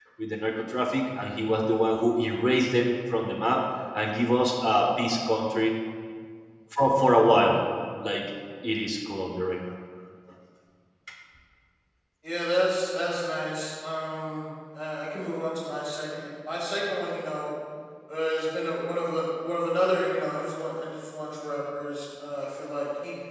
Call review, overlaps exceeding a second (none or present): none